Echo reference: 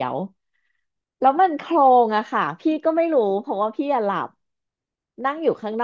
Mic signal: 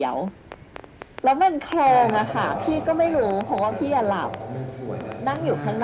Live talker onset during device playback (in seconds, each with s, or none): 1.8 s